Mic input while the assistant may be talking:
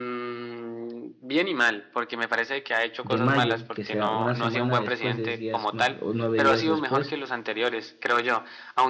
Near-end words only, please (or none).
de mayo, que será una semana después, 10 días más o 9 días después,